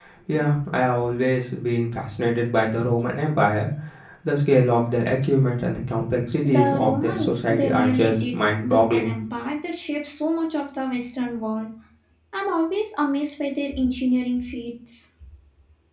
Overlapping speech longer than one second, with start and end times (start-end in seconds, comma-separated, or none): 6.4-9.1